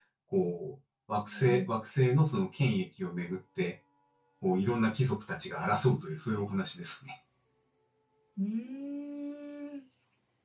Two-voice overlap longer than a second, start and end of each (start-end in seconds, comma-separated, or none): none